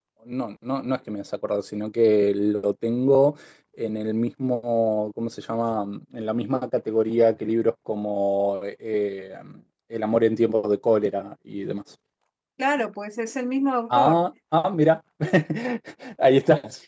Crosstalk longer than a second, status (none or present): none